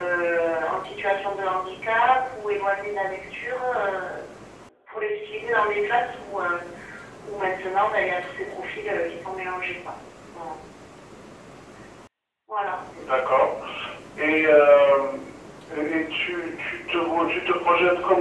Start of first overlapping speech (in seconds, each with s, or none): none